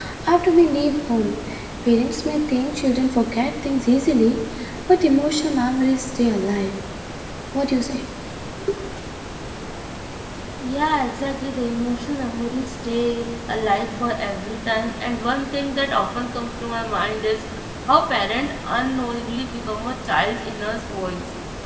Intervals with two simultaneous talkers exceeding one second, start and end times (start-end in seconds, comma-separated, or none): none